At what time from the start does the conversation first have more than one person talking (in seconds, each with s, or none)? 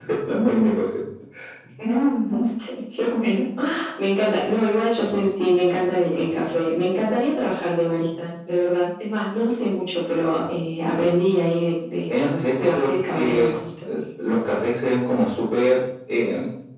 12.1 s